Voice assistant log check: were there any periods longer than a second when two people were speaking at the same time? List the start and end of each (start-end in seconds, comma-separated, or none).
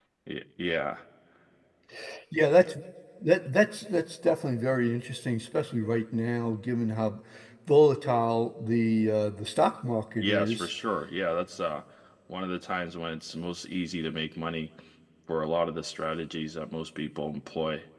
none